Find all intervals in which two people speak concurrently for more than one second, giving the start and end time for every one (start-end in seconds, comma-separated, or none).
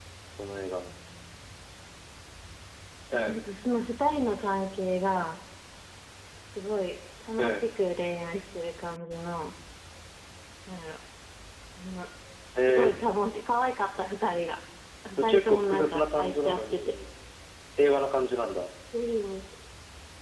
15.1-16.9